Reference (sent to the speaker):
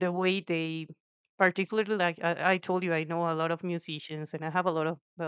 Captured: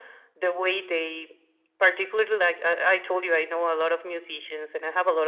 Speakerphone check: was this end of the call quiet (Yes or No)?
Yes